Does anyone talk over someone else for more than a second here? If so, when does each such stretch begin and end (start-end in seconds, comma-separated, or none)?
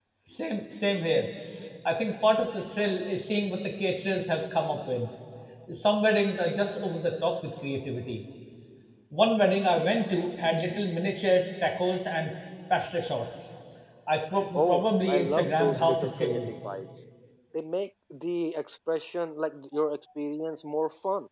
14.5-16.5